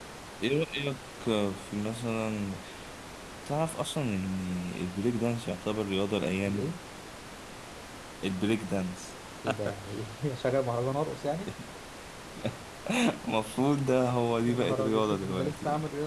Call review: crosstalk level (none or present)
present